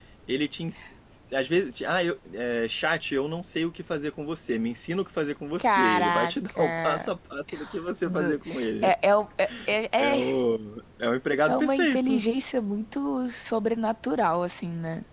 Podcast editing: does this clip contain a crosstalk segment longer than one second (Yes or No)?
Yes